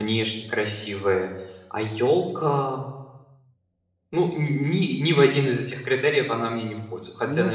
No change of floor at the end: No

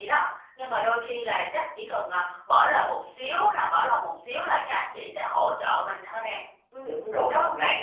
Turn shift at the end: Yes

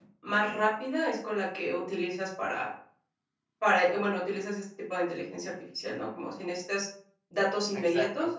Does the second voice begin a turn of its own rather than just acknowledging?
No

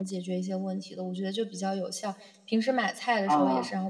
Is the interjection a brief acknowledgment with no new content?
Yes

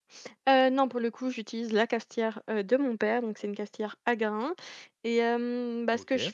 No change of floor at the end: Yes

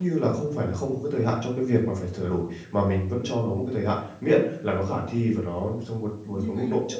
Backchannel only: Yes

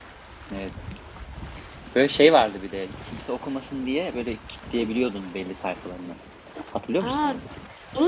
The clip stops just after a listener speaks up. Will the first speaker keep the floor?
No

